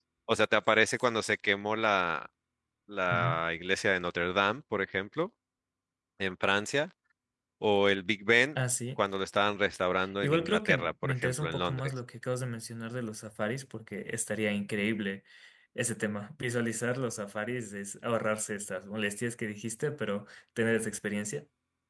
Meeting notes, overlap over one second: present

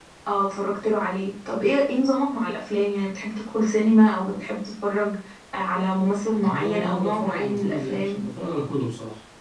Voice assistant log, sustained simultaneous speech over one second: present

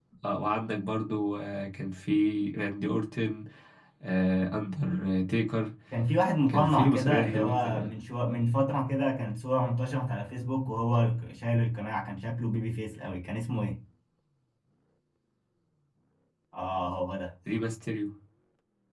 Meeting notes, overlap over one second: present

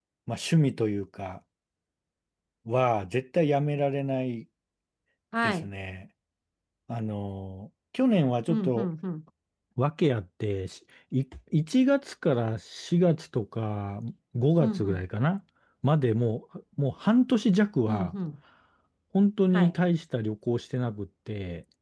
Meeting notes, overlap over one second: none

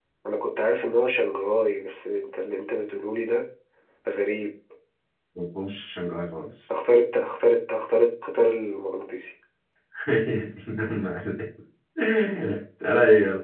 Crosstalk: none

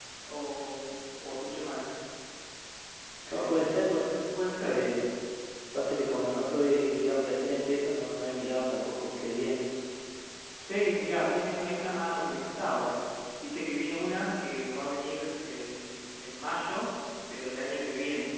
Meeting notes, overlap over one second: none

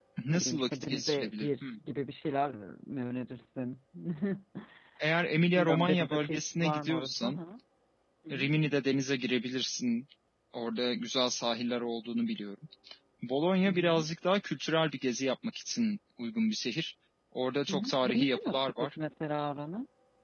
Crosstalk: present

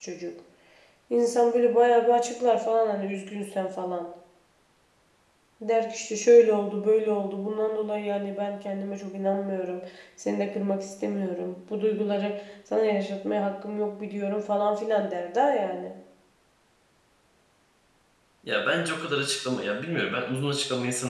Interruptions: none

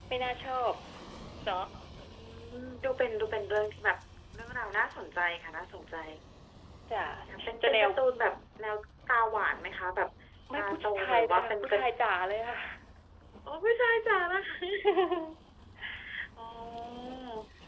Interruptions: present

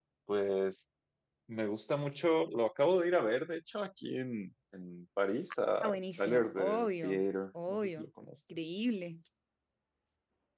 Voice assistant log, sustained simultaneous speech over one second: present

